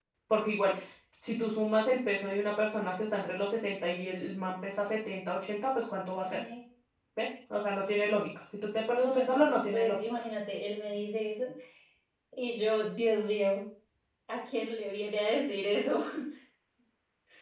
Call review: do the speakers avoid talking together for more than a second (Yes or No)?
No